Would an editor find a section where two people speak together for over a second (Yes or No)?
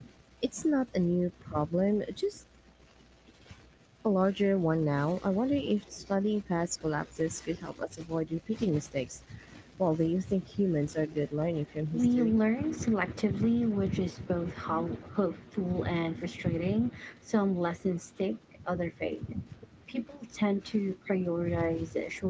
No